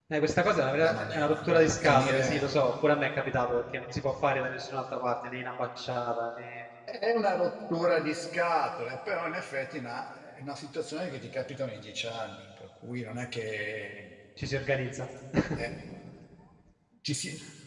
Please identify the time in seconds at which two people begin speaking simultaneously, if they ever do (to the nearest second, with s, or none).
1 s